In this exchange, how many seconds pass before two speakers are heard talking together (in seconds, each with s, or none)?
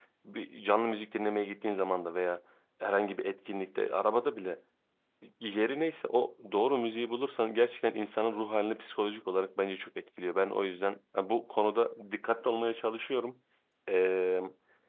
none